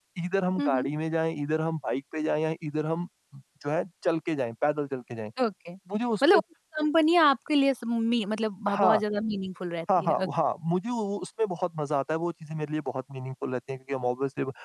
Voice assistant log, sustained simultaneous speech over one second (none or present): none